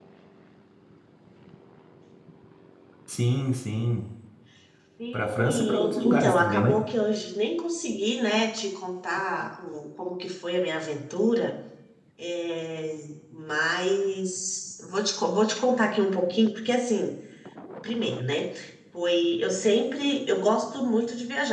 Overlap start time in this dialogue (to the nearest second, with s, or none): 5 s